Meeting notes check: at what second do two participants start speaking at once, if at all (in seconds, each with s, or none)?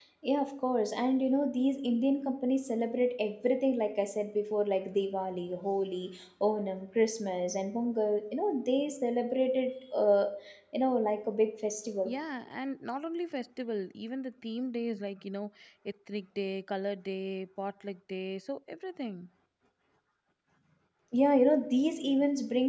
none